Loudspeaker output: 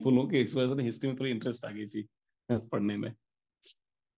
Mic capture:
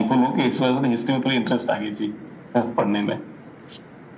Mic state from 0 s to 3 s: echo only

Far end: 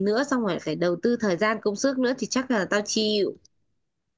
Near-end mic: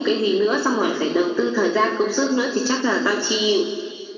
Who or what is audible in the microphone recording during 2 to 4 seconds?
echo only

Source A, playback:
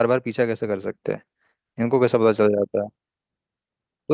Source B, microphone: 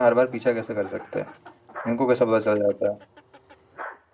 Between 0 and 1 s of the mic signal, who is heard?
echo only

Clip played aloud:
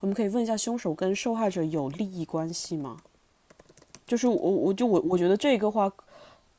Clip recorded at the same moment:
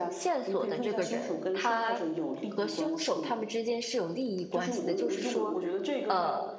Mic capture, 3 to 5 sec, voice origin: both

